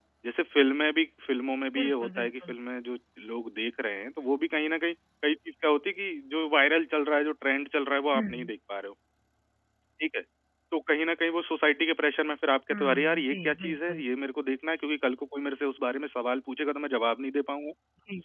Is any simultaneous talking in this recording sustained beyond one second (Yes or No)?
Yes